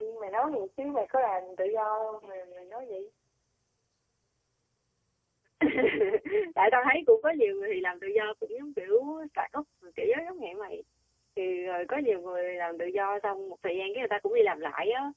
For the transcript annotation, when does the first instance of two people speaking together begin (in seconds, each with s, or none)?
none